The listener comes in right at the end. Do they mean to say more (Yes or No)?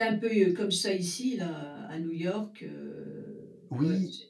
Yes